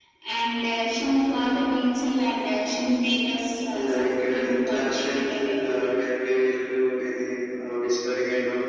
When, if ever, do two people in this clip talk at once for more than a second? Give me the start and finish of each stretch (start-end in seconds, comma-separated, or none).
3.9-5.9